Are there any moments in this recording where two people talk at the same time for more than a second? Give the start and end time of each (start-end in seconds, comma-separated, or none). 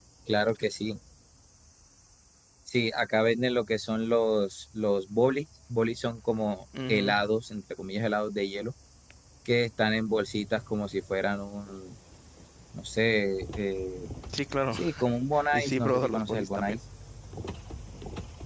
15.5-16.8